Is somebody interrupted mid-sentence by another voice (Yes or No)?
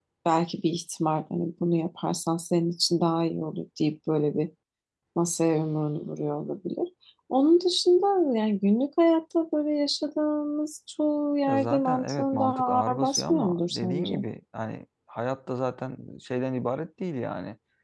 Yes